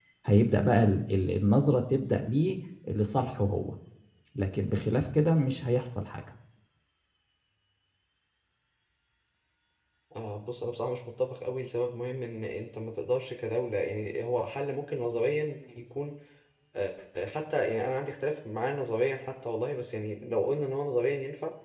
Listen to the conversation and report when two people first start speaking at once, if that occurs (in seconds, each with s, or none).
none